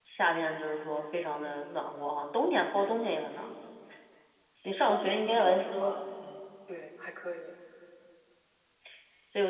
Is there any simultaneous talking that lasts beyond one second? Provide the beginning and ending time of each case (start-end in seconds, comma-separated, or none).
4.6-6.0